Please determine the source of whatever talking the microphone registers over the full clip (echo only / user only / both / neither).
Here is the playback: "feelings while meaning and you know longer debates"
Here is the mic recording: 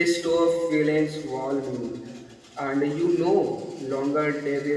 echo only